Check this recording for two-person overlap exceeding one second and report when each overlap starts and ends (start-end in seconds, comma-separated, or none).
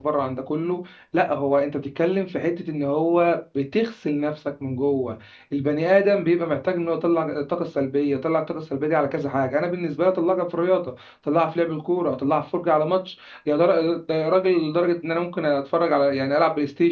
none